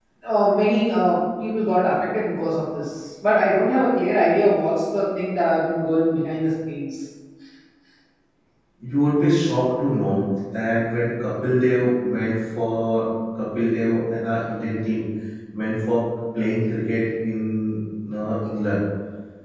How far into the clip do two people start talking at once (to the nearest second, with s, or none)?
none